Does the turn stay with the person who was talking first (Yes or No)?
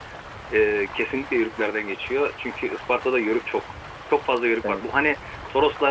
Yes